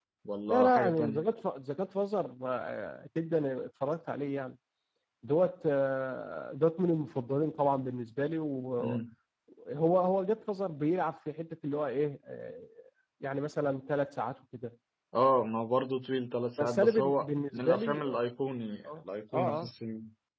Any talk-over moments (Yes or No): Yes